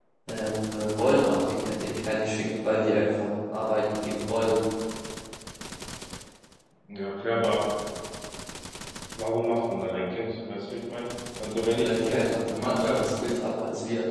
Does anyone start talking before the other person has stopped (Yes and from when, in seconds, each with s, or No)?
Yes, from 11.7 s